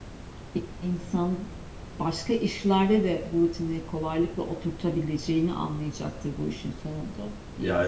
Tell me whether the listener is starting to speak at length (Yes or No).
Yes